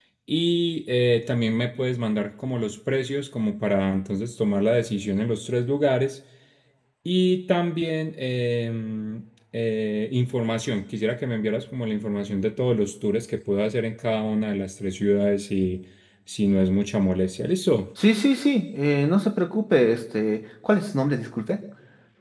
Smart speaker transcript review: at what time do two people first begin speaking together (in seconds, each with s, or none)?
none